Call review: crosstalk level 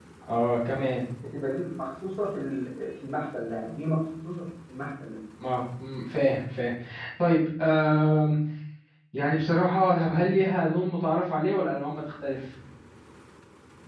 none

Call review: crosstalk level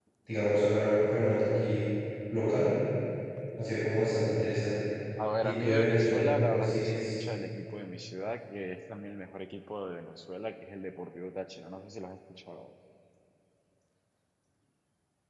present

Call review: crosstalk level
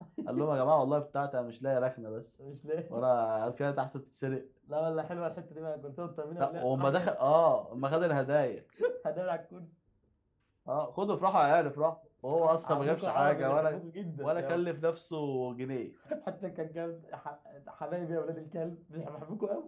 present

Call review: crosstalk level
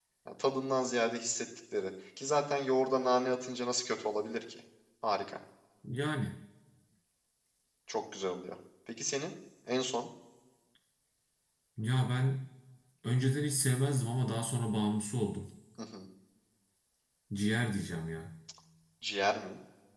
none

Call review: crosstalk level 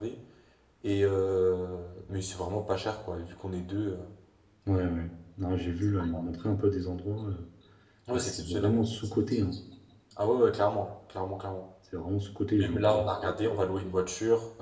present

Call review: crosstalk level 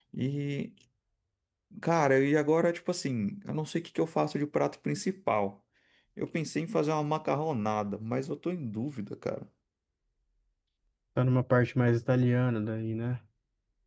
none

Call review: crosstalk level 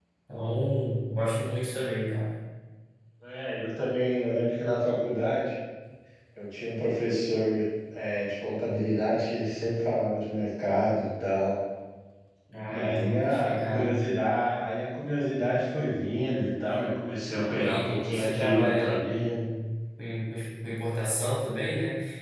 present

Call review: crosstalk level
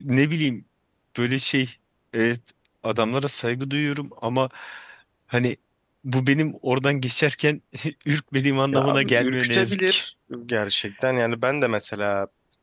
present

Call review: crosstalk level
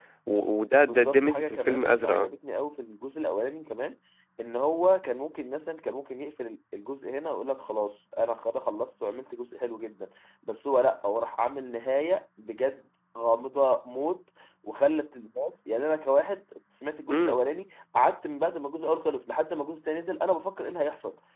present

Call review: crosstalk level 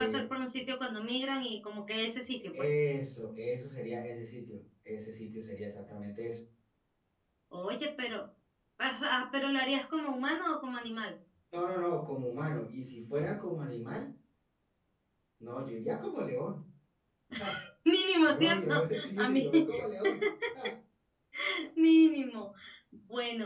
present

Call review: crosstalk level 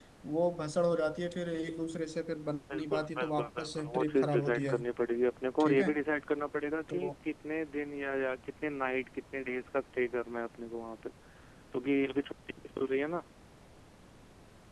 present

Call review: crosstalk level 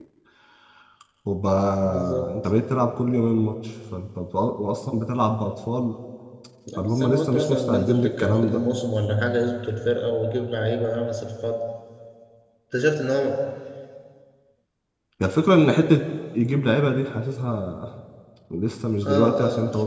present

